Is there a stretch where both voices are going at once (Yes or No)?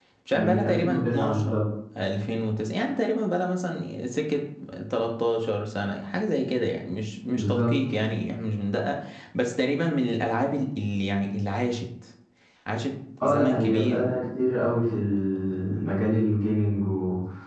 Yes